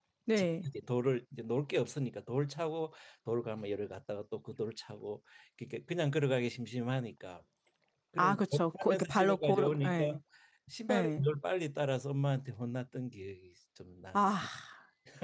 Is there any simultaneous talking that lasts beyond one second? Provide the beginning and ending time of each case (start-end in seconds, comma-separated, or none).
8.2-10.2